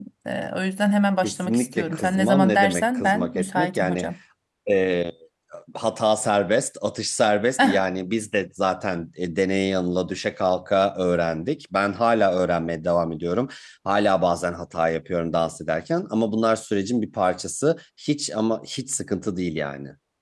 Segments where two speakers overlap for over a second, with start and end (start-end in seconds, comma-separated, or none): 1.2-4.1